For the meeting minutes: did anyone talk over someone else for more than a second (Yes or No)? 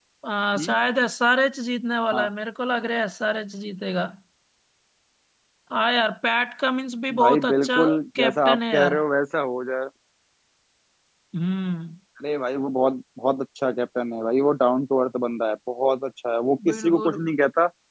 Yes